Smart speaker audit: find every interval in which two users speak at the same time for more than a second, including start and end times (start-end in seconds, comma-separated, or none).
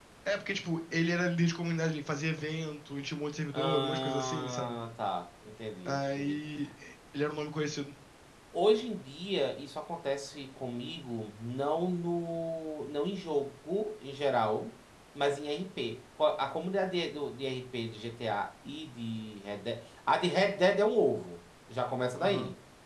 3.5-4.8